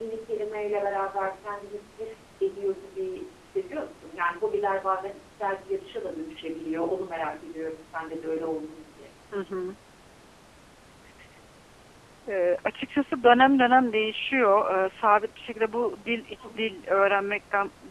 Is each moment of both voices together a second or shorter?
Yes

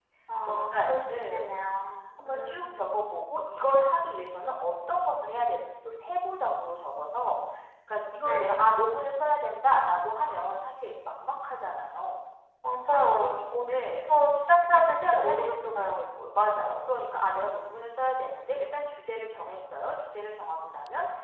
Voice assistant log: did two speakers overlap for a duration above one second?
Yes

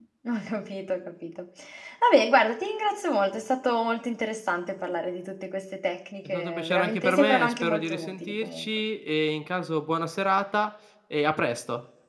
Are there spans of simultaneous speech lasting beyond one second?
Yes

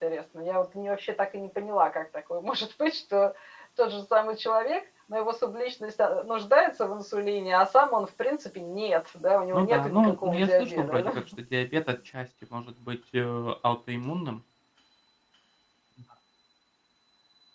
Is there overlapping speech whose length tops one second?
Yes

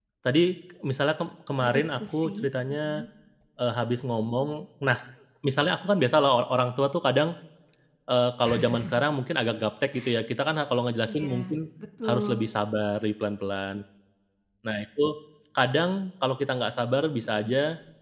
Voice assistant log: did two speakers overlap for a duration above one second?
Yes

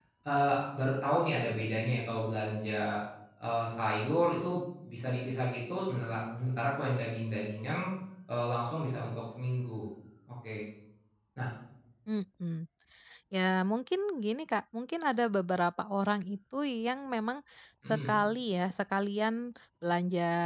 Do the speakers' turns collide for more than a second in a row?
No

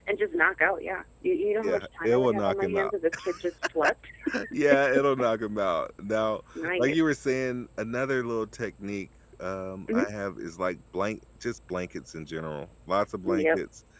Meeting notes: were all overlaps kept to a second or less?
No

